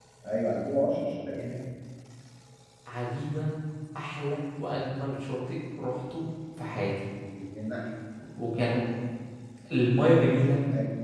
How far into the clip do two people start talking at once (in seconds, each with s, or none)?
none